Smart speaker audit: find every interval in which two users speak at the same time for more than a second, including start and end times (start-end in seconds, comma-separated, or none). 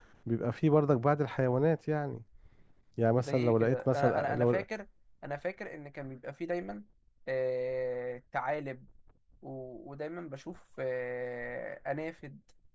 3.2-4.6